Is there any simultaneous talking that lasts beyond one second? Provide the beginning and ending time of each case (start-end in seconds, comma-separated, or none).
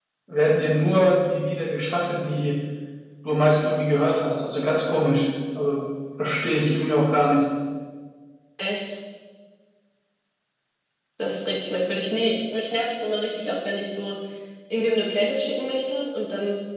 none